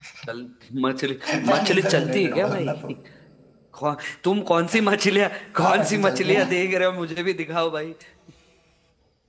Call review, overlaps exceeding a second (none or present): present